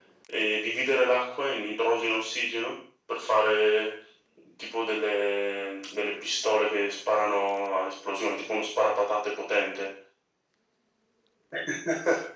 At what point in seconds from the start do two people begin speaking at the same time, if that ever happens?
none

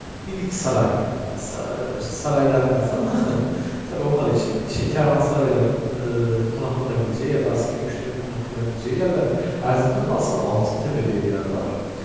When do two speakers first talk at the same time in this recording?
none

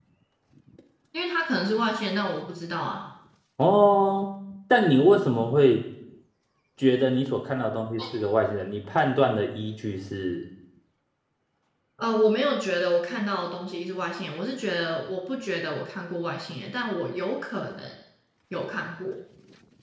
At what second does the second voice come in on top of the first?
none

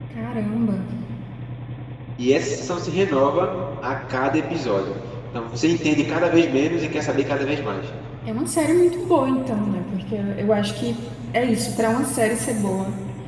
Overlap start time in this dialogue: none

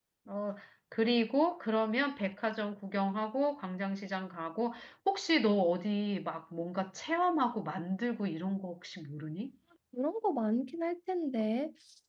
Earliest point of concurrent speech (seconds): none

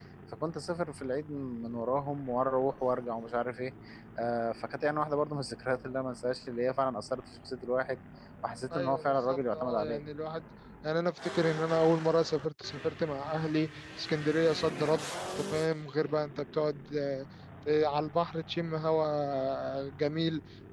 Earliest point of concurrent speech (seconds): 8.8 s

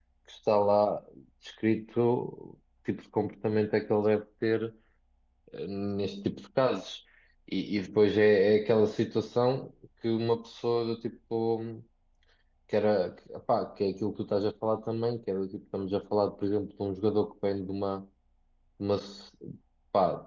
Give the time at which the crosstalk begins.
none

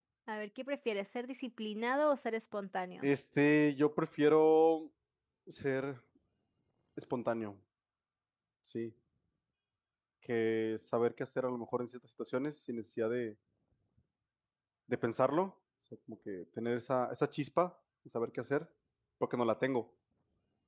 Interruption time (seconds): none

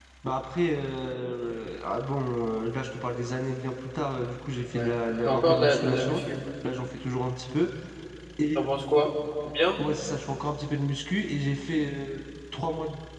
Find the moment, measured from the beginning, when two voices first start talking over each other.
4.8 s

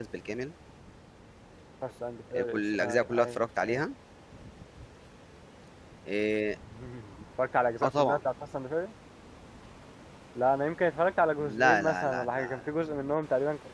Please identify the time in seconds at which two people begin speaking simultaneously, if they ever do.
2.4 s

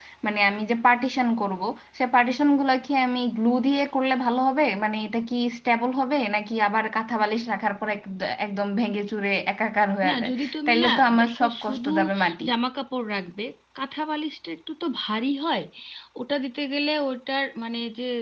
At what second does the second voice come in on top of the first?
10.0 s

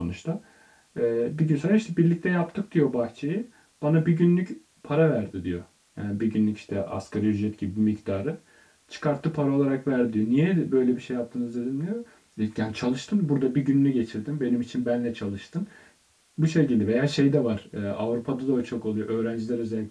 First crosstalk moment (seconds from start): none

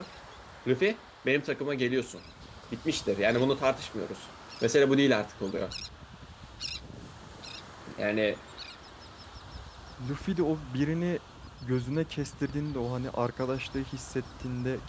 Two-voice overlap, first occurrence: none

